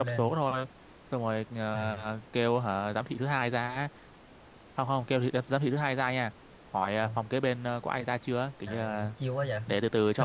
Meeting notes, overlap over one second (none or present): none